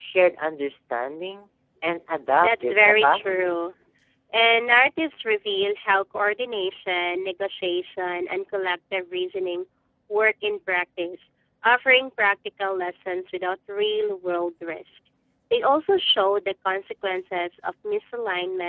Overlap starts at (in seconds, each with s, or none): 2.4 s